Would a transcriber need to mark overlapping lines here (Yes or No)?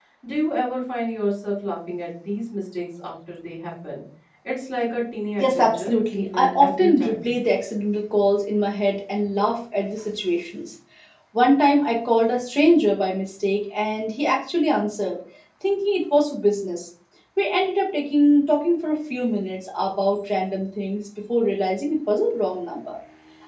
Yes